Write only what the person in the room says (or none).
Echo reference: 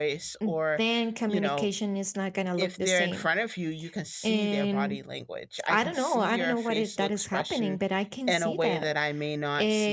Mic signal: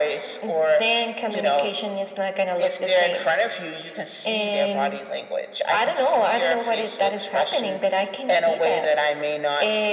none